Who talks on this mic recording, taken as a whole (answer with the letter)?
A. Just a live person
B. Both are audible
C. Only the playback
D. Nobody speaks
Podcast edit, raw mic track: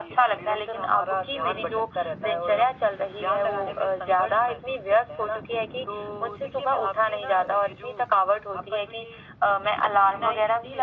C